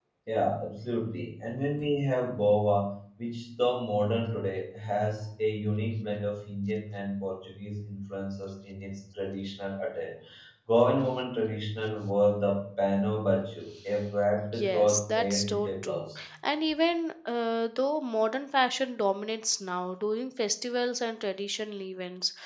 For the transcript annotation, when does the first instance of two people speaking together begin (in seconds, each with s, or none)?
14.4 s